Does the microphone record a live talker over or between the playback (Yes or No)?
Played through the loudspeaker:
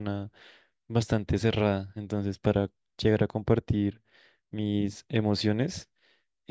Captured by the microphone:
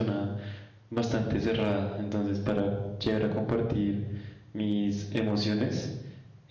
No